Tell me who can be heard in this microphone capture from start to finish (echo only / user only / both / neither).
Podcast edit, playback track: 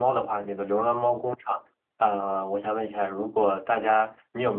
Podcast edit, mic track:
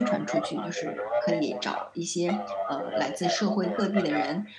both